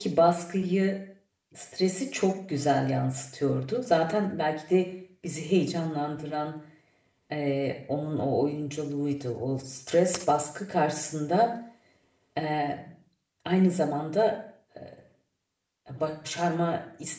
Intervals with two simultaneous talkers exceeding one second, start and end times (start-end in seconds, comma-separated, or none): none